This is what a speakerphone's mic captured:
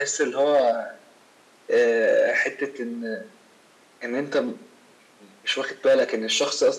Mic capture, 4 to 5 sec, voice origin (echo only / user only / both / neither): echo only